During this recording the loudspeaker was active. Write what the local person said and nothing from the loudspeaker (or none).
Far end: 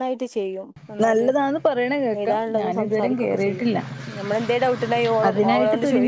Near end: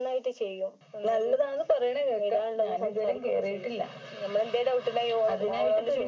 none